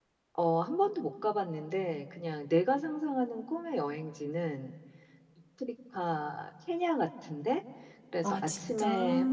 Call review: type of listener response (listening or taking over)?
listening